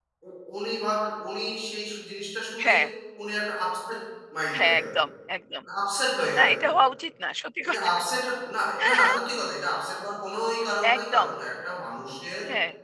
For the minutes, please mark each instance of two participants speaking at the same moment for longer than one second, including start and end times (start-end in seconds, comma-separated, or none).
none